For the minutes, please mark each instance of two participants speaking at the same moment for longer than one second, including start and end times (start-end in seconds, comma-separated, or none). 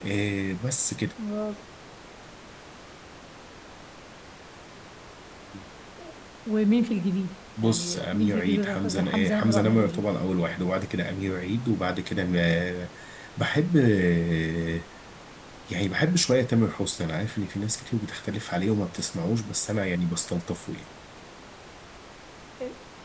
7.6-10.0